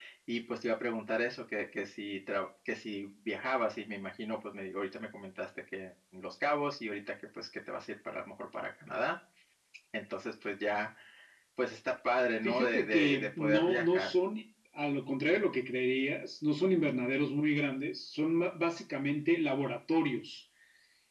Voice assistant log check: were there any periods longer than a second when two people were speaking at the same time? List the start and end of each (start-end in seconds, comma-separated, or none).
12.4-14.1